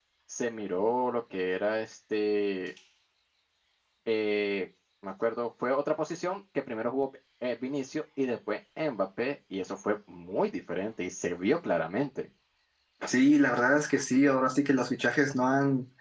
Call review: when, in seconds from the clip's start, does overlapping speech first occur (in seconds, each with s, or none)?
none